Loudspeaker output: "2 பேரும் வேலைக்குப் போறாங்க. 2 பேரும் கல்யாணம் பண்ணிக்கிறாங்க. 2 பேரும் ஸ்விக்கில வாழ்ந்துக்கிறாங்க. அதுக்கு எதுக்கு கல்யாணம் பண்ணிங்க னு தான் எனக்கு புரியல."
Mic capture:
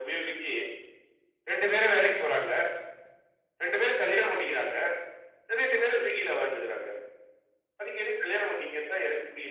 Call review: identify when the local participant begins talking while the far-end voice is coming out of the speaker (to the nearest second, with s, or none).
none